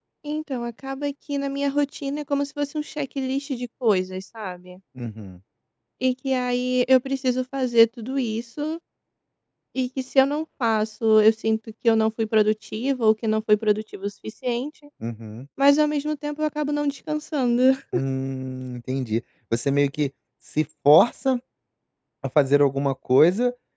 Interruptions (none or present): none